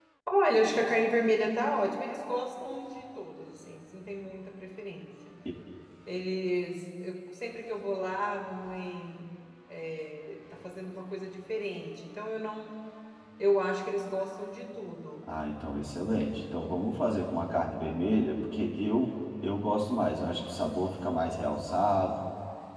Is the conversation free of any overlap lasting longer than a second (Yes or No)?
Yes